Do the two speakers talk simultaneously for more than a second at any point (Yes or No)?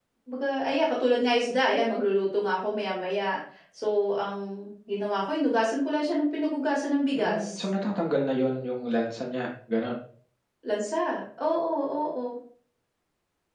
No